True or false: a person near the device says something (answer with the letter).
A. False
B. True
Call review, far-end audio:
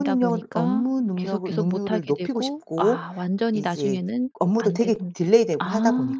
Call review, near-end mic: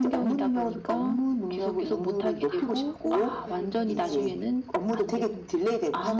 B